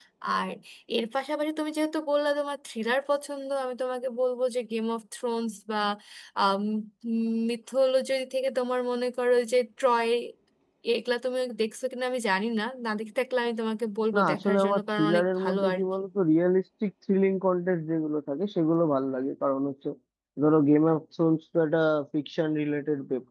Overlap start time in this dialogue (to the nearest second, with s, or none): 14 s